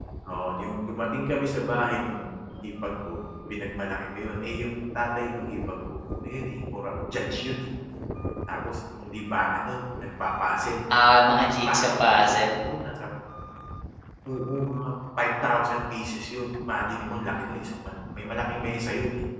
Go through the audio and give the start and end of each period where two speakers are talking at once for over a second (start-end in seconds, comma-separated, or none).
11.2-12.4